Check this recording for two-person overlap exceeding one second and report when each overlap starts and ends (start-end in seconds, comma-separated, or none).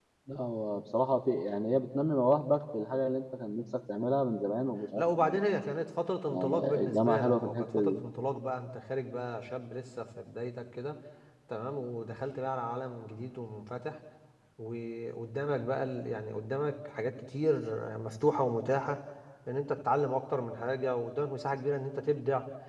6.3-8.0